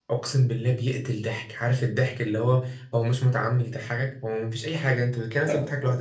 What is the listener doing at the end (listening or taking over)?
listening